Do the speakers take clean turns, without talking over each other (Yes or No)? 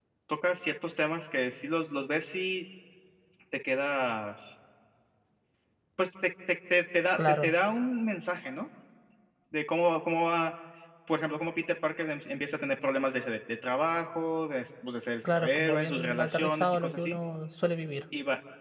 No